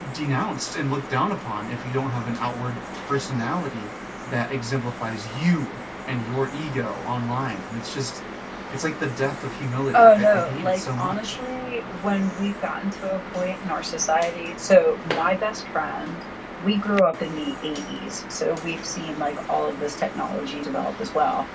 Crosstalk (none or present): present